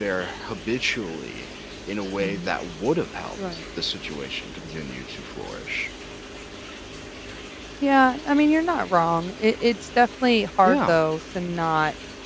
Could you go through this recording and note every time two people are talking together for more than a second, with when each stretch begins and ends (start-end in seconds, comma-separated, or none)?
none